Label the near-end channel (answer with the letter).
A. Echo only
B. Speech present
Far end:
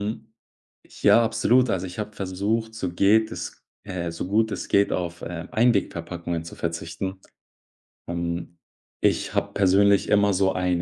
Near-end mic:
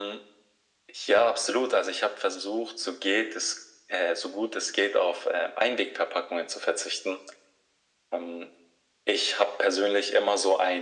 A